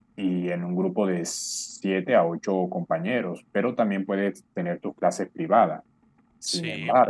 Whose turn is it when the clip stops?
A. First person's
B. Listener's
A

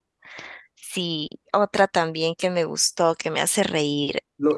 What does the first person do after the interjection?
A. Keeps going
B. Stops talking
B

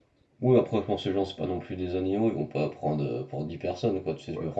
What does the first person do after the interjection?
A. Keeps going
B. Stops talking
A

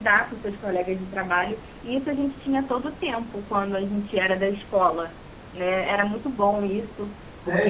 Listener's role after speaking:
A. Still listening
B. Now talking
B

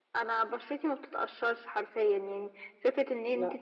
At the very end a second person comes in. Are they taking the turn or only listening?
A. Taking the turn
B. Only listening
B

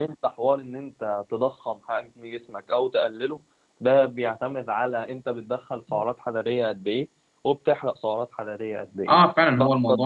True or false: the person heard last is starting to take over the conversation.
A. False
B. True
B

